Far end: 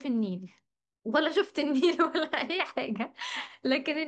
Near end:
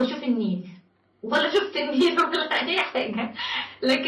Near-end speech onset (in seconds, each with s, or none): none